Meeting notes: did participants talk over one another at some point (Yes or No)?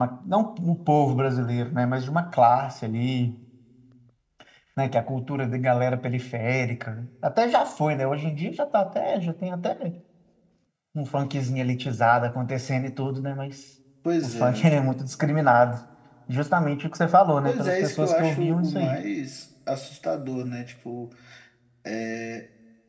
Yes